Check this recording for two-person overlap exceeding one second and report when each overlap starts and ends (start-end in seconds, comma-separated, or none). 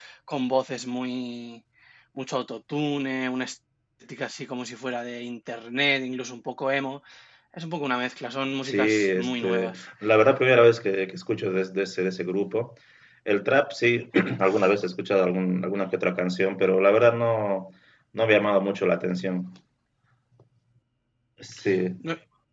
8.6-9.9